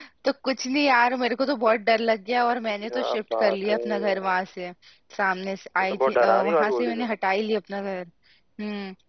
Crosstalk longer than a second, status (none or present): present